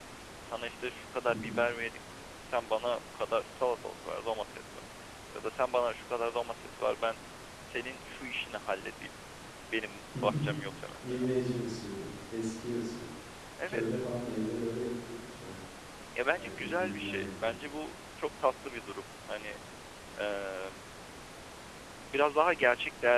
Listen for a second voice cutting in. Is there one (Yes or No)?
Yes